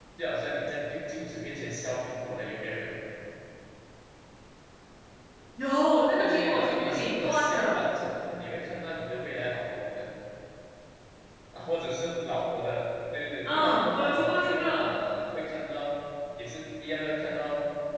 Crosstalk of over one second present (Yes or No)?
Yes